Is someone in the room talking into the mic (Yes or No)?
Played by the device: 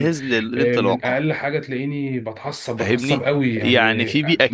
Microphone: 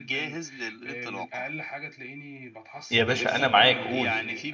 Yes